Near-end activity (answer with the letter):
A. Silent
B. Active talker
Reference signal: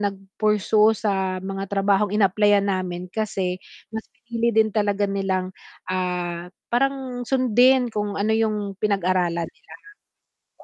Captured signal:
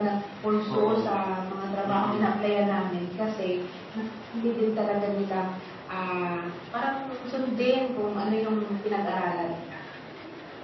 B